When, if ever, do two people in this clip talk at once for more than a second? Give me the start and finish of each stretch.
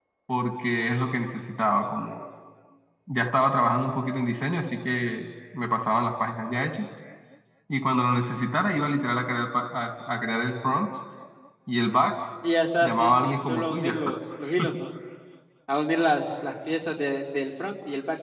12.8-14.1

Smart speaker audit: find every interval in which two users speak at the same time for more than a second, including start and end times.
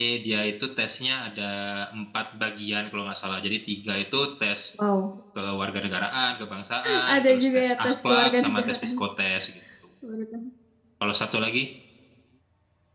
7.1-9.0

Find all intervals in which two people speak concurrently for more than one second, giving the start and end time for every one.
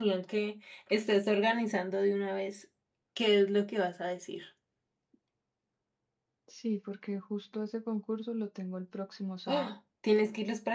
none

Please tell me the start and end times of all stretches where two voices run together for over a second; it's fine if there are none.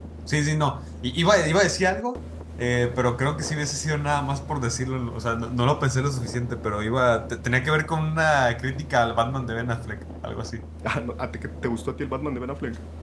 none

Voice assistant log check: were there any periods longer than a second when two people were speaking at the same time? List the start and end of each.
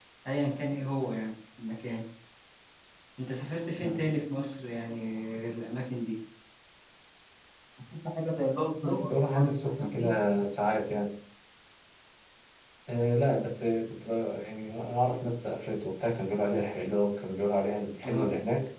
8.8-10.1

